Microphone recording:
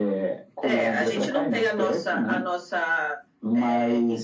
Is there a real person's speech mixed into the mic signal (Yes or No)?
No